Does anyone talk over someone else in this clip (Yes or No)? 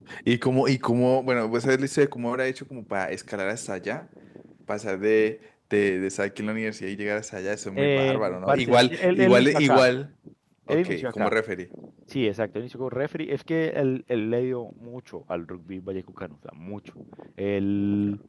Yes